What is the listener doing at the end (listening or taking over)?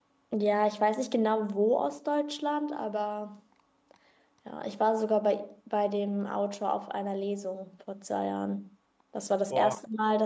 listening